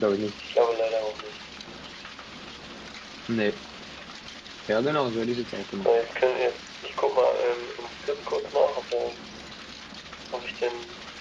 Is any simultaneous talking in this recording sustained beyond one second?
No

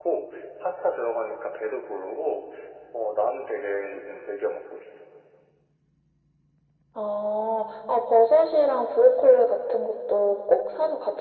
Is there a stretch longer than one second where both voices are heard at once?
No

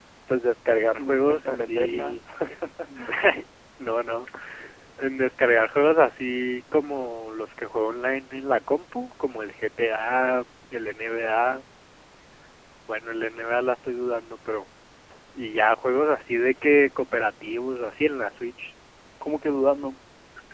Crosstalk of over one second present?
Yes, from 1.0 s

